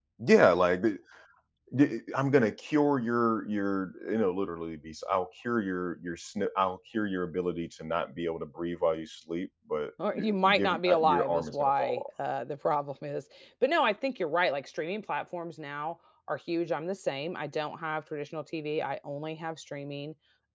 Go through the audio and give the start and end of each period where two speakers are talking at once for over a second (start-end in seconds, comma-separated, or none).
10.1-12.0